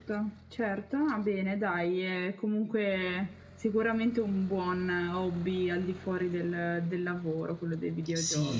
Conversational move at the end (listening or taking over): taking over